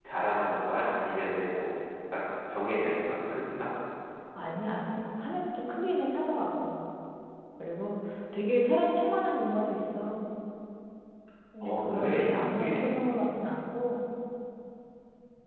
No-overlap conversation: No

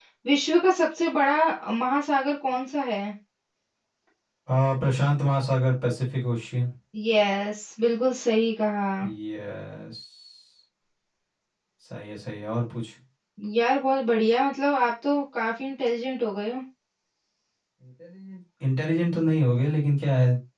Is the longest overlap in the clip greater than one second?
No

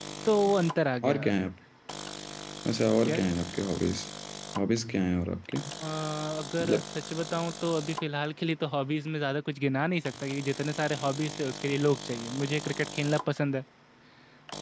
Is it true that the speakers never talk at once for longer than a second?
Yes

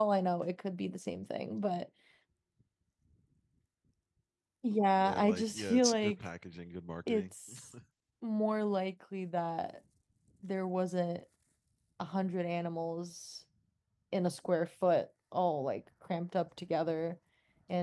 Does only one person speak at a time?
No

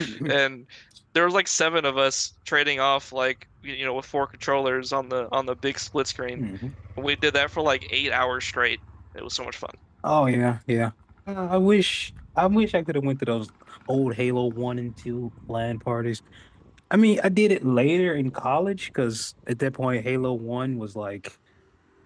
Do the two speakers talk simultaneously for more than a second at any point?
No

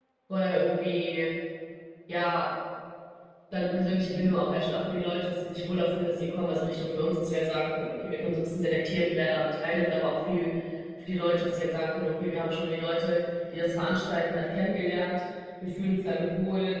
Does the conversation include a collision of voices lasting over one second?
No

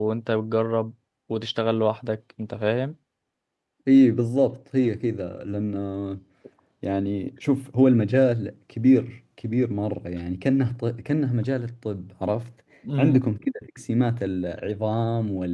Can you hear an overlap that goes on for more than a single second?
No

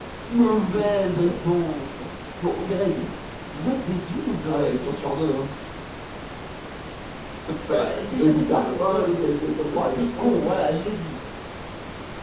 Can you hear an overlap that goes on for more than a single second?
Yes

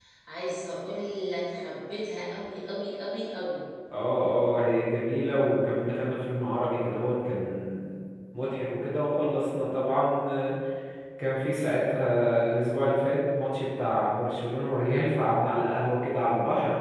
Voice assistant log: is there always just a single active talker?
Yes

